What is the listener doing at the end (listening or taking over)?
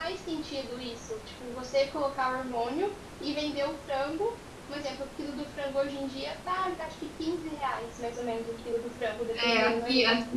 taking over